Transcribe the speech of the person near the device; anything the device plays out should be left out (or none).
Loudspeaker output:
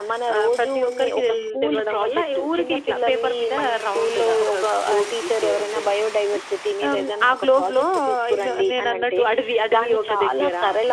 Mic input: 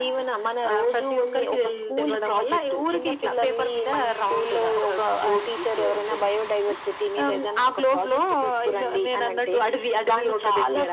none